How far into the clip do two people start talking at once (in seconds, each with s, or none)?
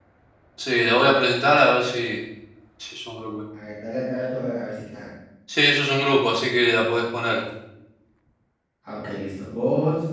none